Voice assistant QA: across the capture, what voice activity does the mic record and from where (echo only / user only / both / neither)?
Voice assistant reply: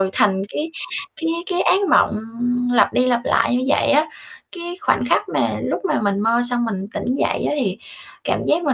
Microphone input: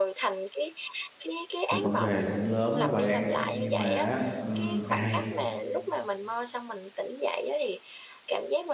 both